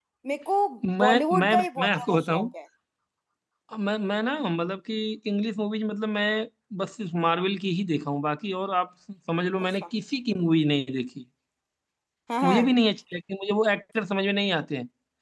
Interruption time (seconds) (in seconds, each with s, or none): 1.0 s